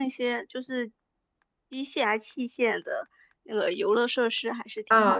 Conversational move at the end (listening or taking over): taking over